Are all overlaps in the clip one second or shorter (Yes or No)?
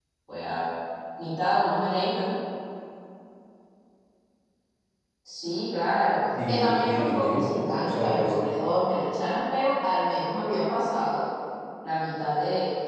No